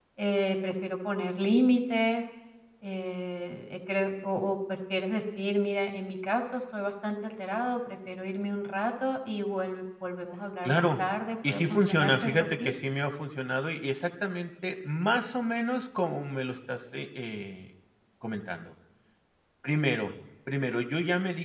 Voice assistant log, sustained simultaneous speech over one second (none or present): present